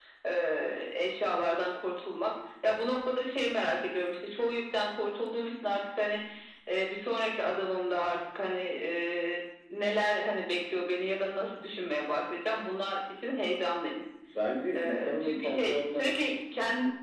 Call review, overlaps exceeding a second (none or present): present